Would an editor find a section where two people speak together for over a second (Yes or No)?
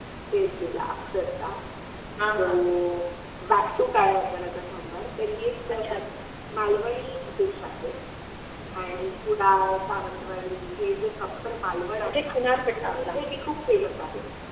No